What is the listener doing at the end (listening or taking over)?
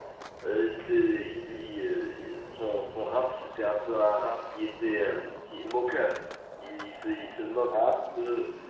listening